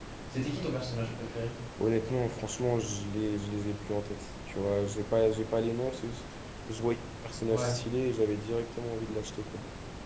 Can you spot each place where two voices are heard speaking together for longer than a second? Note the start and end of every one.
none

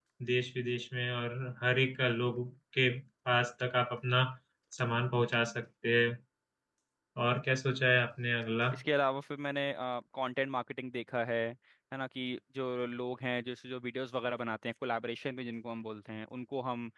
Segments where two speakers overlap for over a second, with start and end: none

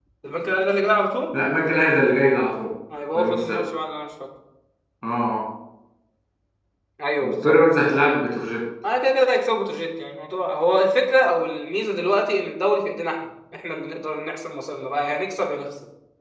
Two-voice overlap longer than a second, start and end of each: none

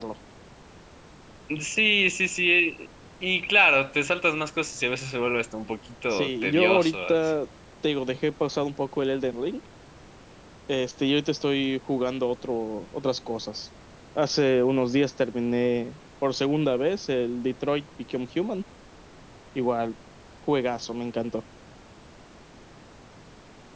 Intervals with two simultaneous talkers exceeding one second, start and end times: 6.1-7.3

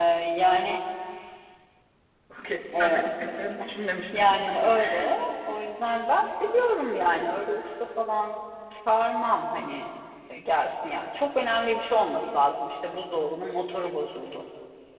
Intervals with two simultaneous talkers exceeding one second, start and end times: none

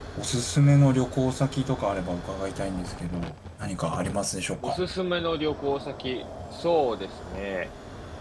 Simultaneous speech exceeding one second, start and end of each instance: none

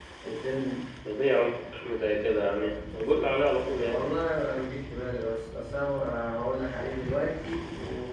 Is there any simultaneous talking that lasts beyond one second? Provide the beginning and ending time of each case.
none

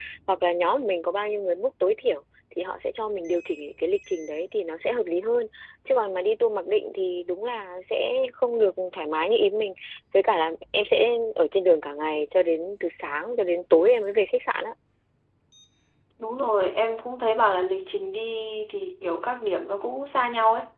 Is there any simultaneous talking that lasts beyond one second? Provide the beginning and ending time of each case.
none

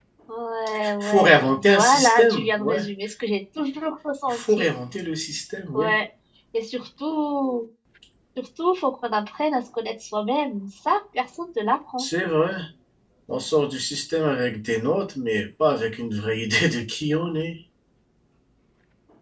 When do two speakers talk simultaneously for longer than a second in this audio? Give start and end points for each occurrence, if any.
0.8-2.9

